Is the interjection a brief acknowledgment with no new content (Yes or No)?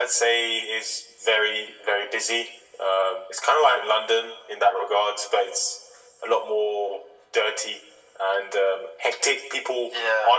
Yes